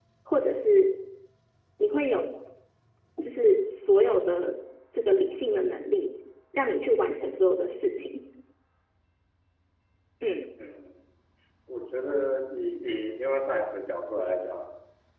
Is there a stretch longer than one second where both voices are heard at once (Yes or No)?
No